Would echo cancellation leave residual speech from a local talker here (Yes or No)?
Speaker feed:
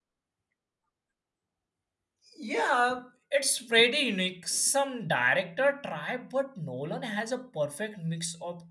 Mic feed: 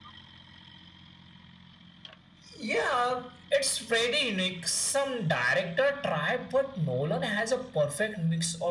No